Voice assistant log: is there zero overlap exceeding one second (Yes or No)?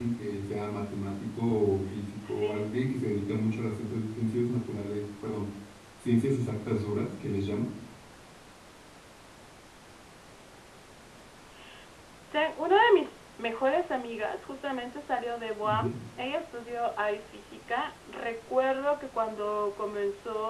Yes